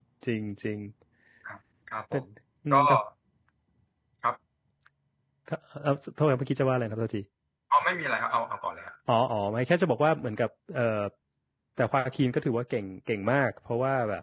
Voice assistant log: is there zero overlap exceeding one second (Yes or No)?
Yes